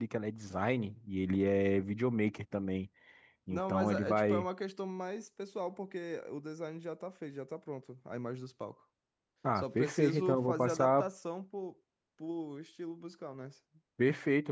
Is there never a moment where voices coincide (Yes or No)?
No